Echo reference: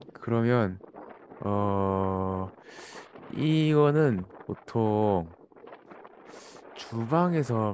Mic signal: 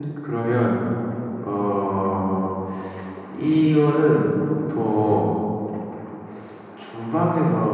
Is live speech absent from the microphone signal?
No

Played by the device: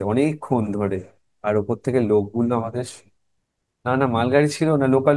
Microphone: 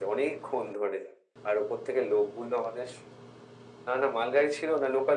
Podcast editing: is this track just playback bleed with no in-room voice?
Yes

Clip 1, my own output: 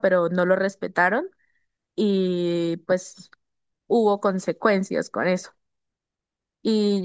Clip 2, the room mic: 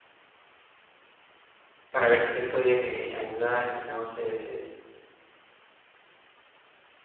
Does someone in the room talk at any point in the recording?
Yes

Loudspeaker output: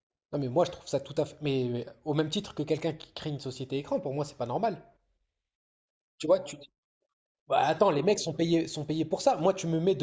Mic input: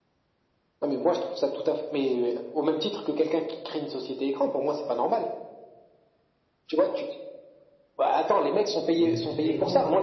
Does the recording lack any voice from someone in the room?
No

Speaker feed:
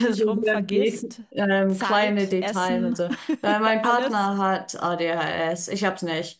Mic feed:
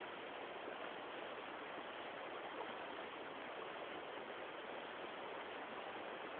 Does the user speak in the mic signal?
No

